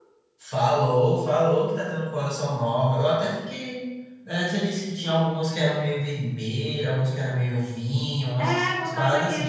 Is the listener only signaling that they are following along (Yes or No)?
No